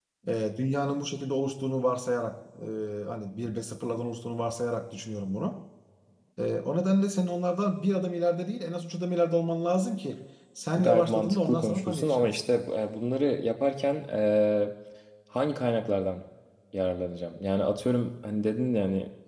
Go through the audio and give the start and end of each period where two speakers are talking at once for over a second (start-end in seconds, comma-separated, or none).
10.8-12.4